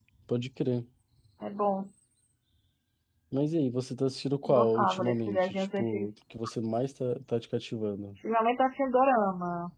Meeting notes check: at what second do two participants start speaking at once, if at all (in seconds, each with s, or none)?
4.4 s